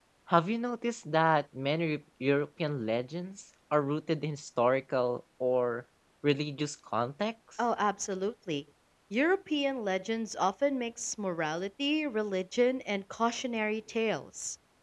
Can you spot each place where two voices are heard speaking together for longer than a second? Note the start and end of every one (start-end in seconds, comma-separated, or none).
none